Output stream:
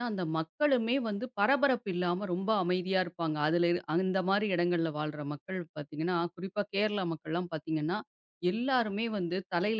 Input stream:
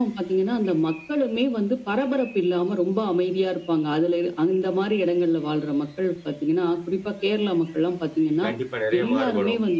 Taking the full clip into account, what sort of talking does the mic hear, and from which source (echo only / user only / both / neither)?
both